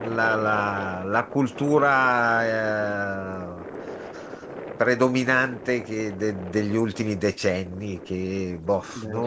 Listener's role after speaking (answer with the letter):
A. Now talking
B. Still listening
B